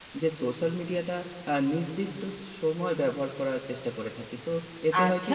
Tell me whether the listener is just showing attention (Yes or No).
No